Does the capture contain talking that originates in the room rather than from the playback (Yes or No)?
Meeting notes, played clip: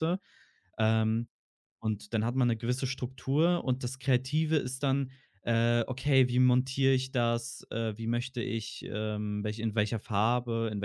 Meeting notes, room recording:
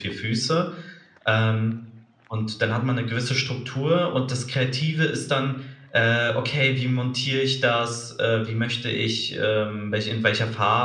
No